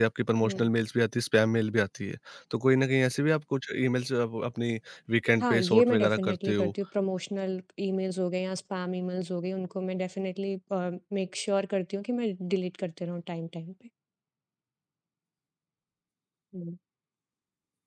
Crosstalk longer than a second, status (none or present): present